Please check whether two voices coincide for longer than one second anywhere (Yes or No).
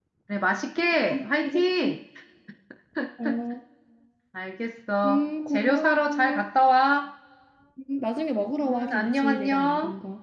Yes